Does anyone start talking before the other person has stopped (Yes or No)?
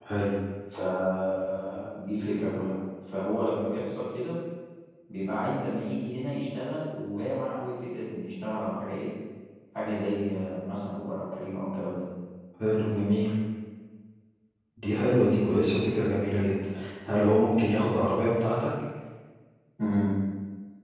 No